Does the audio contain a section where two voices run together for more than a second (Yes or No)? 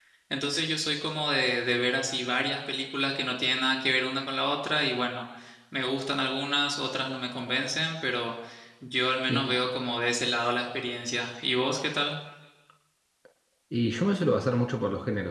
No